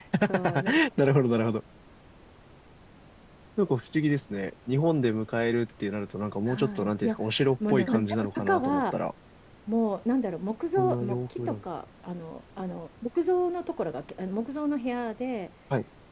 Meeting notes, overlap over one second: present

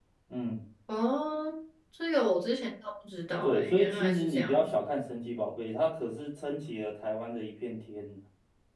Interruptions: present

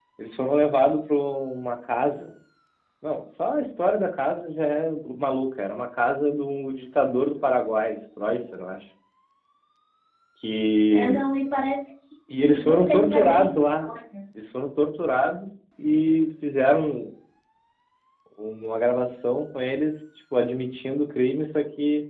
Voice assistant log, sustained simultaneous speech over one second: present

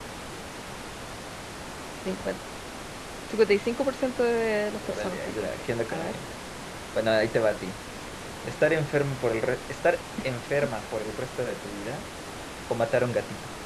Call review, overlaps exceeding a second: present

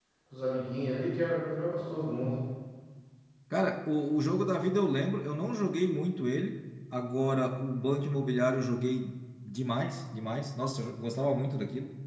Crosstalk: none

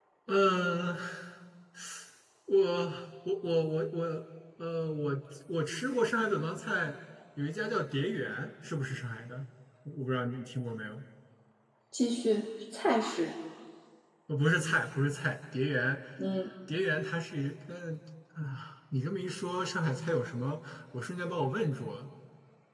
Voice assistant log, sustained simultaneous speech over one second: none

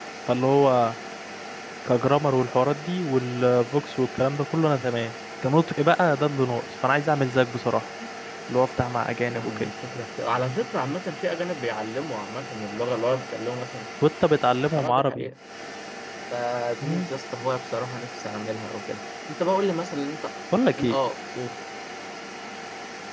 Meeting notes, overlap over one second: none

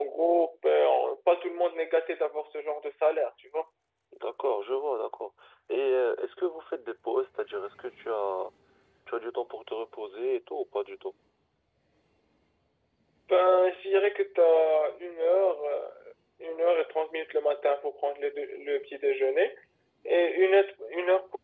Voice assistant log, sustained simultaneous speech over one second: none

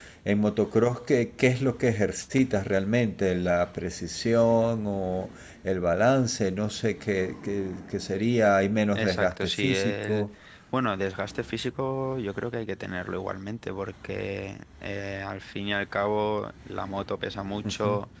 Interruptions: present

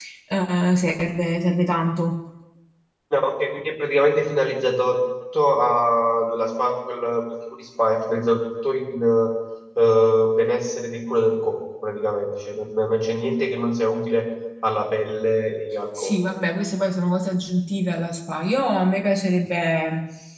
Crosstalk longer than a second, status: none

